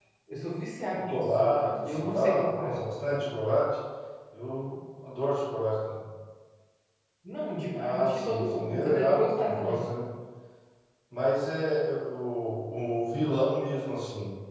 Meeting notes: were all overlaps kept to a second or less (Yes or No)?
No